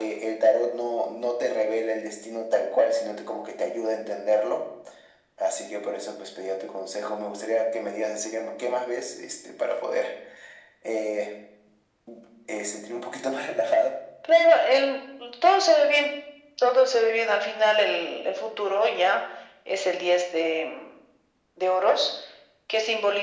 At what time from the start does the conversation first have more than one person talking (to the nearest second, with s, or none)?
none